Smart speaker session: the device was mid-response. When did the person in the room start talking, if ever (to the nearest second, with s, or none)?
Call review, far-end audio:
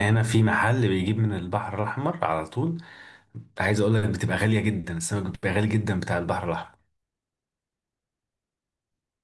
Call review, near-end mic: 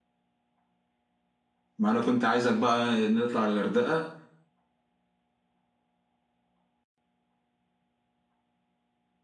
2 s